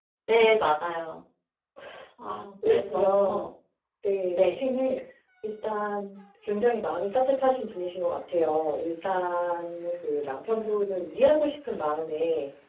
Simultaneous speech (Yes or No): Yes